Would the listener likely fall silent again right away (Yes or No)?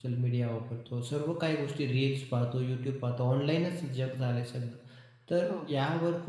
Yes